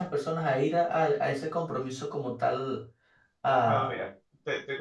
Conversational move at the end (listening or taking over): taking over